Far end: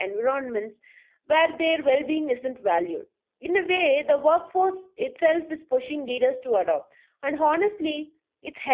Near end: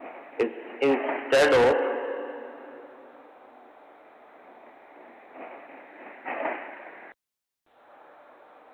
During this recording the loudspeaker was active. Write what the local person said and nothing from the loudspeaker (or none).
Ins- Instead of